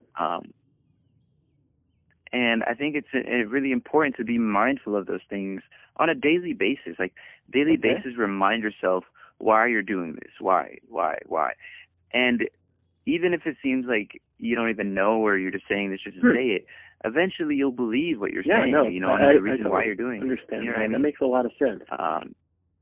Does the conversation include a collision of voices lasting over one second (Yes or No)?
Yes